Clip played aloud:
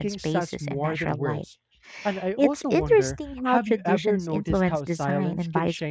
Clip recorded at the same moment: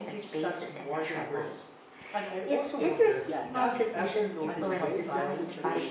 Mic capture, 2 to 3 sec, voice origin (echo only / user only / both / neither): echo only